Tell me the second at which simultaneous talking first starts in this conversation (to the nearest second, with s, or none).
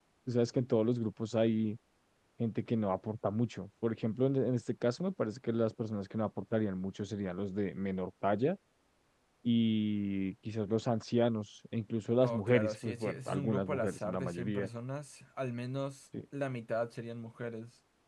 12 s